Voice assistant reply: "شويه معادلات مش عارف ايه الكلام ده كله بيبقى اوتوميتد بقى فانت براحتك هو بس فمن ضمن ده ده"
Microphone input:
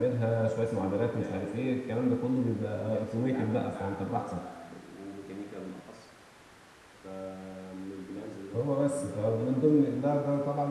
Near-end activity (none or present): present